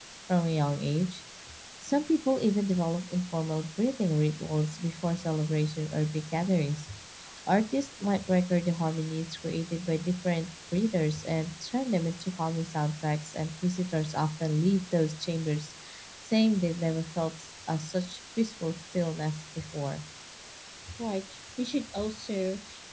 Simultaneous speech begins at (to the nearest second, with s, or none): none